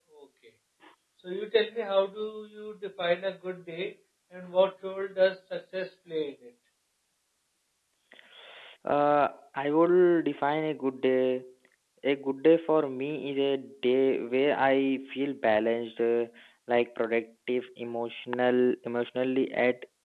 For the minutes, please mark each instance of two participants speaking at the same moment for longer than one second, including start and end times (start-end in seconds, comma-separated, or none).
none